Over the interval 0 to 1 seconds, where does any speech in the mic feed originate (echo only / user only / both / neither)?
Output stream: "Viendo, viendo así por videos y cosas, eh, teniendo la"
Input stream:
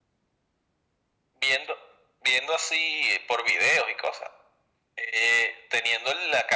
neither